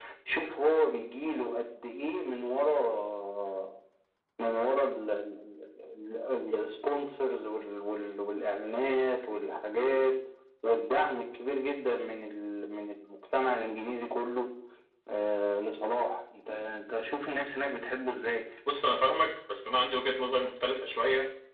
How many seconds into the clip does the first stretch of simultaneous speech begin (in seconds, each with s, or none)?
none